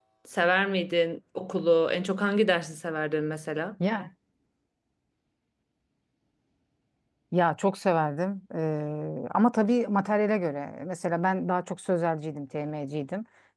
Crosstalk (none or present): none